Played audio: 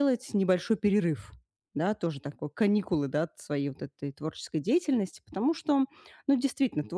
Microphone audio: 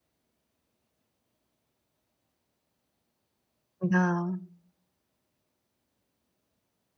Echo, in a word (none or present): none